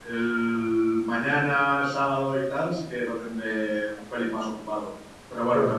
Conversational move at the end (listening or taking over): listening